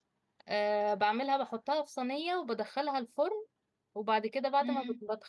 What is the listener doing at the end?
listening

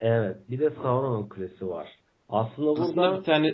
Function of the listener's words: taking over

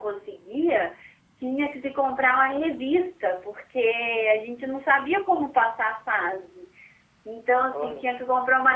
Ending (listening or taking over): listening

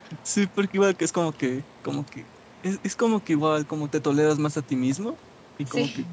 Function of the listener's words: listening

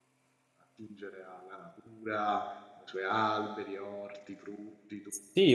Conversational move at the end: taking over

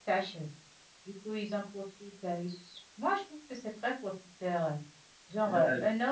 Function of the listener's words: listening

